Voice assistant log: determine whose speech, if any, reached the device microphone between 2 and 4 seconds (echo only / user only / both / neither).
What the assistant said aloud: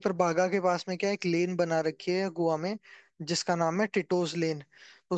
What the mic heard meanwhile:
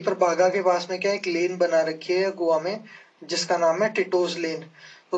echo only